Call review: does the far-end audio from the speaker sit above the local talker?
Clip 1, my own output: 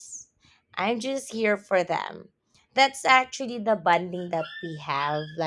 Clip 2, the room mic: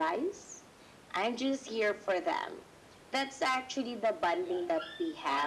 Yes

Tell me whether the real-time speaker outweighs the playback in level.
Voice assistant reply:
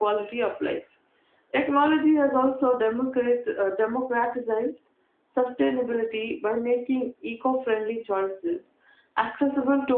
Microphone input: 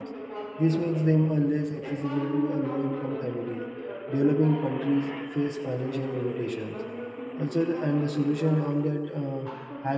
Yes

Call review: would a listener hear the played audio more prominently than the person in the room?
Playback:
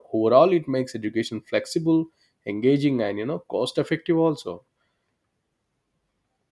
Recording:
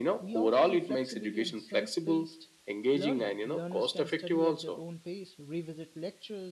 Yes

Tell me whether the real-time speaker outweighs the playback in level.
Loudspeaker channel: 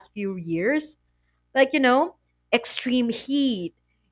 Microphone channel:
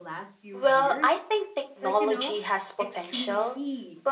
Yes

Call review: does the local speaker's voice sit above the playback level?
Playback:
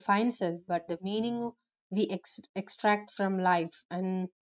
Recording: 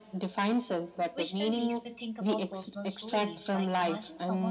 No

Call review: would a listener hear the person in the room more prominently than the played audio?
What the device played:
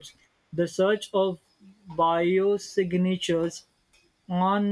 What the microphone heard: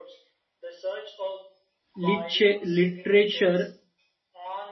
Yes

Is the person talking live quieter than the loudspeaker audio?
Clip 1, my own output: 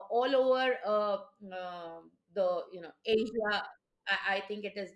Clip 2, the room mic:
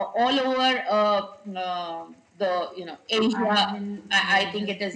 Yes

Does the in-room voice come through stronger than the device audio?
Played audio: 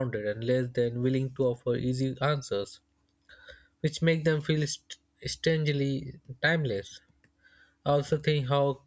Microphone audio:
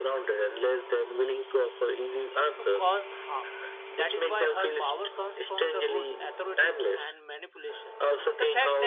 No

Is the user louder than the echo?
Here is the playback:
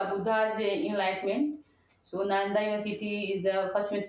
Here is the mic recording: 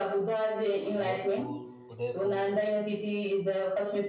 No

